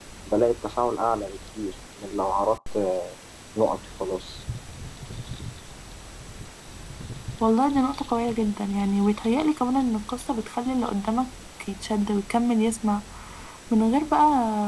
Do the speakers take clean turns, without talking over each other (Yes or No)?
Yes